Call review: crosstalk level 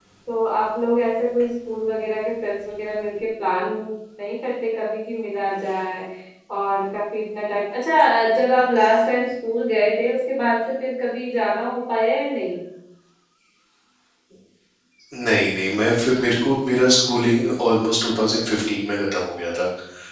none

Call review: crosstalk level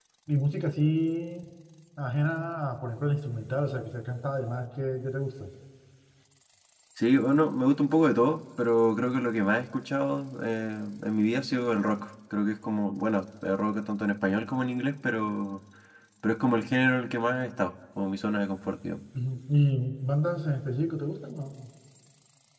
none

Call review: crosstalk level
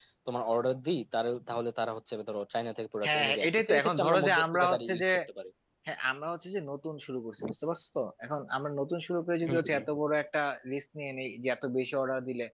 present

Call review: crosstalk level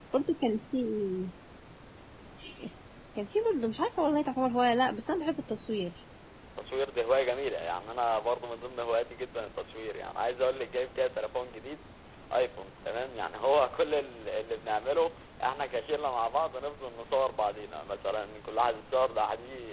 none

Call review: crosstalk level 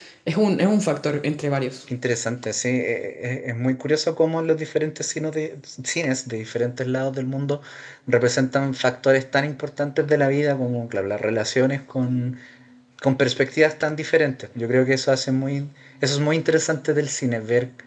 none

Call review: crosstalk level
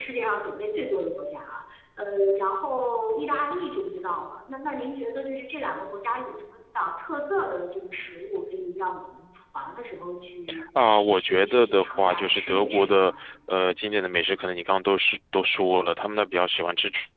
present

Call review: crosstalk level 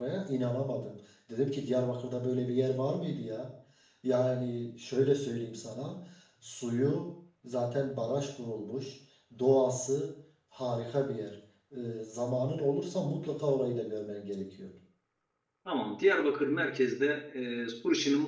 none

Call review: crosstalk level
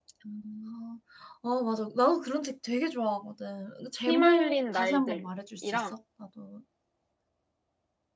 present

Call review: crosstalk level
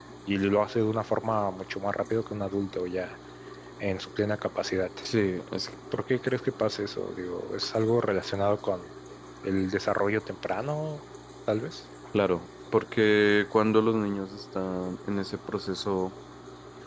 none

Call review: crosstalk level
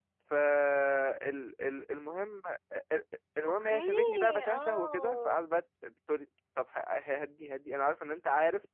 present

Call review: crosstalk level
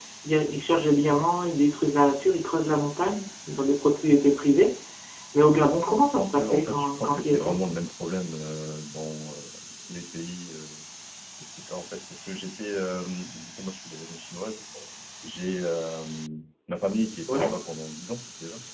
present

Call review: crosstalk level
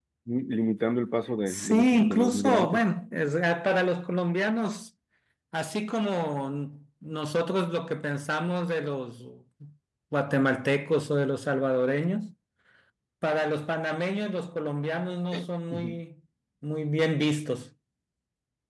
present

